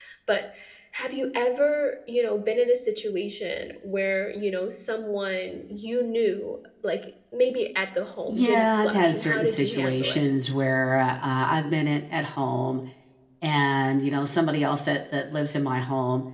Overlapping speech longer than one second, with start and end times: 8.3-10.3

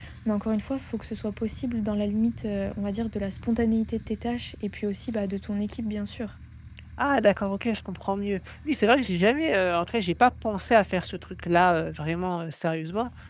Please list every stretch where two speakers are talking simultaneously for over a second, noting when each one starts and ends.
none

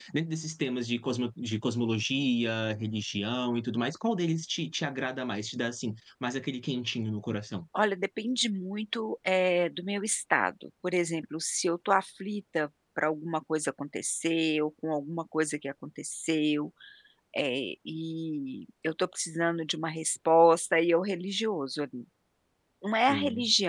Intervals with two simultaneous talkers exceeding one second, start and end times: none

